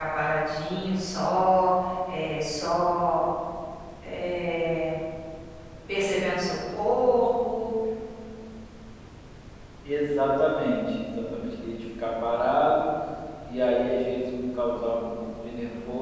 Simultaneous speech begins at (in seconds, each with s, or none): none